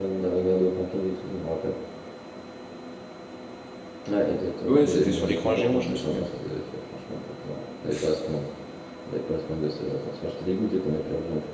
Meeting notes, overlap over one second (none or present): present